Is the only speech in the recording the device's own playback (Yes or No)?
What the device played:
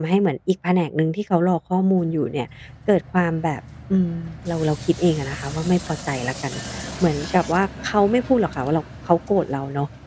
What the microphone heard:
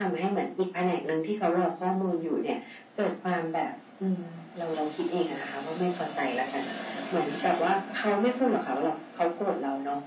Yes